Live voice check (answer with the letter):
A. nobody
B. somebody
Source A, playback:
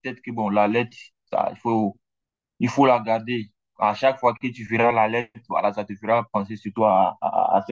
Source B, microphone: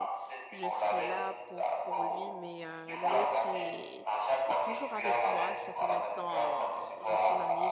B